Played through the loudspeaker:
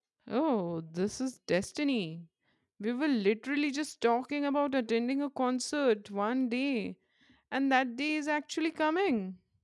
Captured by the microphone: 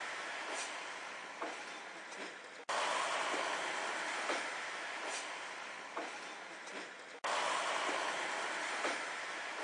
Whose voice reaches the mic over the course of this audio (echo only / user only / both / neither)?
neither